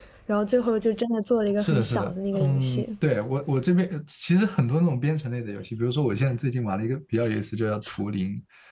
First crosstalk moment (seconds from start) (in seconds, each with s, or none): 1.6 s